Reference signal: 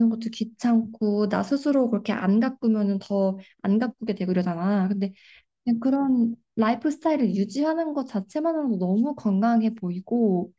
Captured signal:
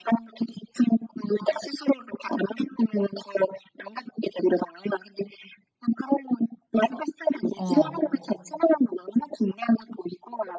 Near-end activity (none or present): present